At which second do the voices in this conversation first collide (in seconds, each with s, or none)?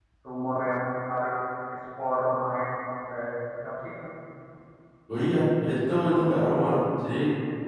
none